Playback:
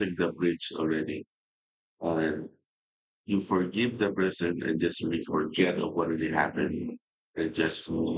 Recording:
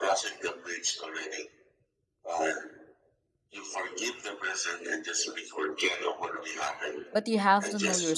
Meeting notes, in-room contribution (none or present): present